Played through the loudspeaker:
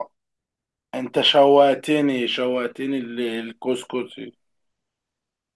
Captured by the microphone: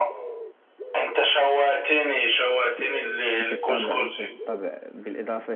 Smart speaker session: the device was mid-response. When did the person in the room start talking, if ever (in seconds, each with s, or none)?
3.4 s